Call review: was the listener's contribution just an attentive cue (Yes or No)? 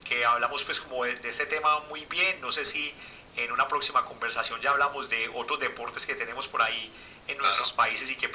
Yes